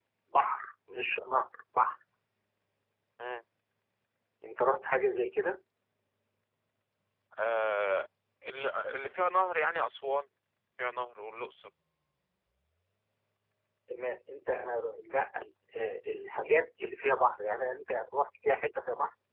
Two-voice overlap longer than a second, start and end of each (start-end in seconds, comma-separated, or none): none